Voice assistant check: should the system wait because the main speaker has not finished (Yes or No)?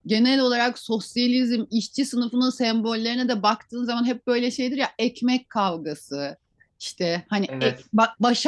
Yes